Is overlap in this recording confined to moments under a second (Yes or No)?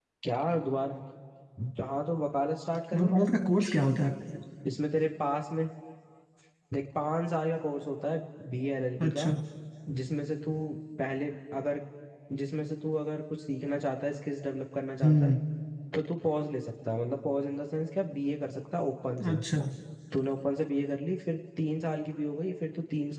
Yes